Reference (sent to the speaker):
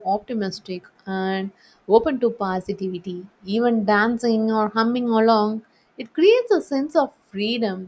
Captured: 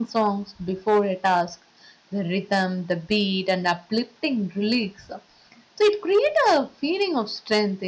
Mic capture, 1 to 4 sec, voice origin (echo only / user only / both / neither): user only